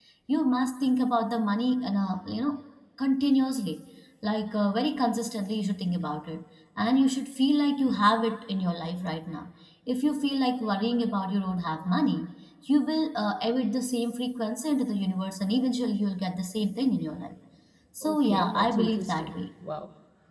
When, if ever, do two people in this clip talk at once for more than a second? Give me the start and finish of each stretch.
18.0-19.4

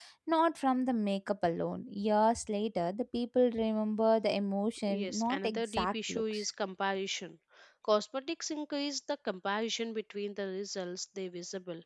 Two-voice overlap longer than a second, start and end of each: 4.9-6.5

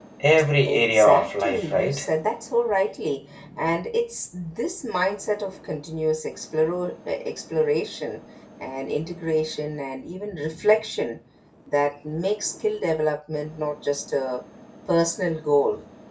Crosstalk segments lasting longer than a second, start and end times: 0.7-2.1

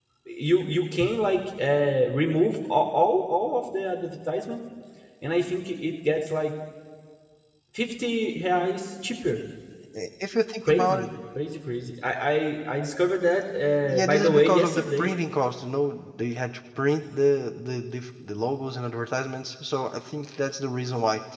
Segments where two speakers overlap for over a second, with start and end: 13.8-15.1

